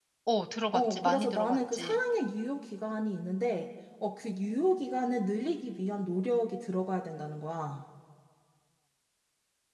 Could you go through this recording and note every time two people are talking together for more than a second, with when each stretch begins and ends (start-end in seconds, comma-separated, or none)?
0.7-2.0